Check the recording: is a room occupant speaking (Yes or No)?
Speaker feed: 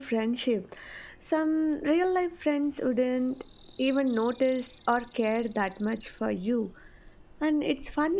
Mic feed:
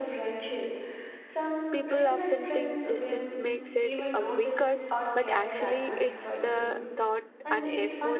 Yes